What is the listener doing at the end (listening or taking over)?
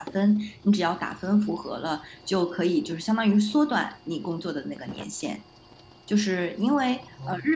listening